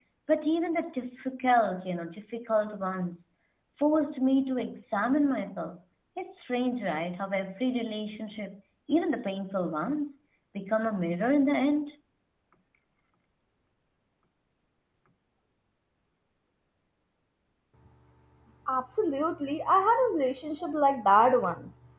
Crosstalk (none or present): none